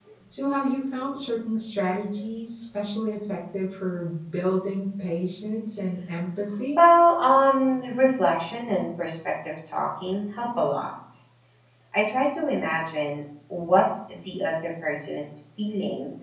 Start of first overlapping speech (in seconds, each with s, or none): none